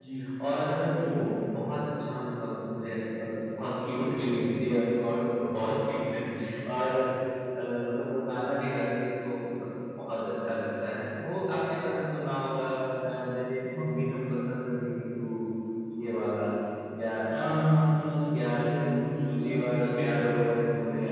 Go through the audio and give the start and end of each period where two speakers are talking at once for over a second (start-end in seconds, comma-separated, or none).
18.3-20.2